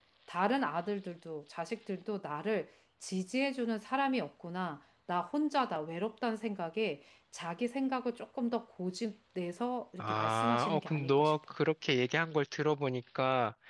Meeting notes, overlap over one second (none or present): present